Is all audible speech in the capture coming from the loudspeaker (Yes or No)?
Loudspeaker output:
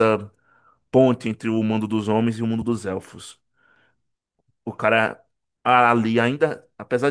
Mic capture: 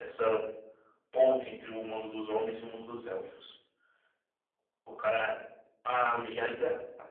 Yes